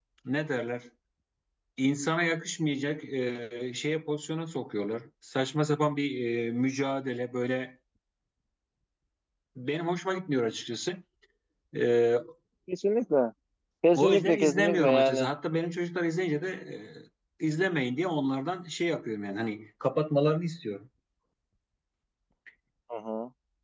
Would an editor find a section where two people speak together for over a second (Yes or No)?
Yes